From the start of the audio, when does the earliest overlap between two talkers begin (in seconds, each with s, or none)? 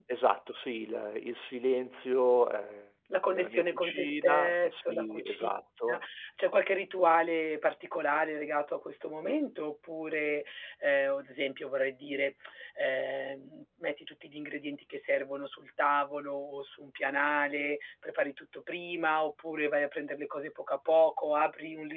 3.3 s